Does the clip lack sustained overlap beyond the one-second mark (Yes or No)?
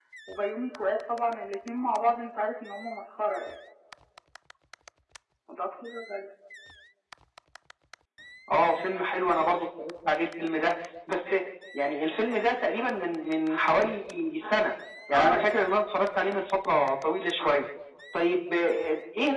Yes